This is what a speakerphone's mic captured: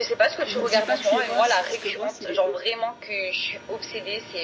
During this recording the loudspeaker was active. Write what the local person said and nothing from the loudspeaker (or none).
Ne dis pas que je suis Ross, parce que Ross, il est. horrible.